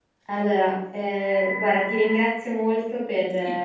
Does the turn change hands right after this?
No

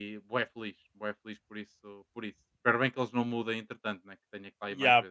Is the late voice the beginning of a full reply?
Yes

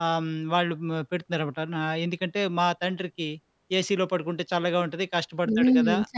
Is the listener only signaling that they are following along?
No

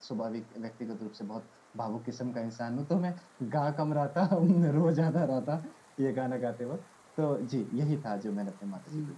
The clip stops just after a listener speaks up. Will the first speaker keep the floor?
No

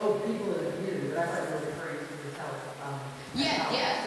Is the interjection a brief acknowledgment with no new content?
No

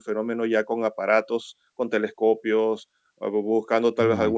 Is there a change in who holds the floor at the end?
No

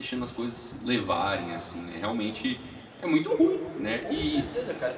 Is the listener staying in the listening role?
No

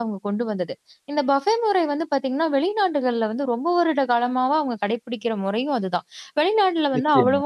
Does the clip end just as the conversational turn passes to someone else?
No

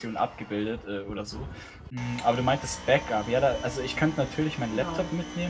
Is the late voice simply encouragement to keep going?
Yes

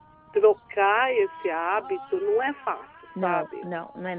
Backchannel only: No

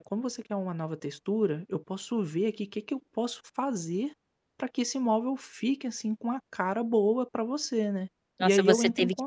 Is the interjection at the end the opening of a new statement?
Yes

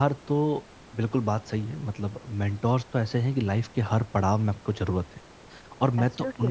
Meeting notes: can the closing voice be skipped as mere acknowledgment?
Yes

